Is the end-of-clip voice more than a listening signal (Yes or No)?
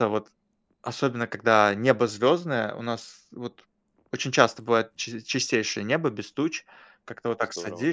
No